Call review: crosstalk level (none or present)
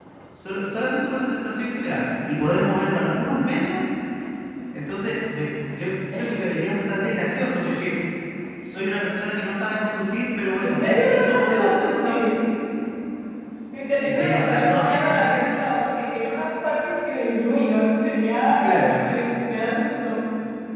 present